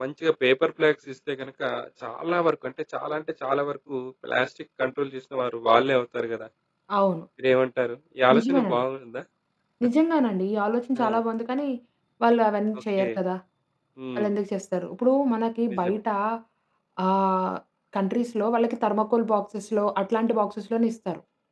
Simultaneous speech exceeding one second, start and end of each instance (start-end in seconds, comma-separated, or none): none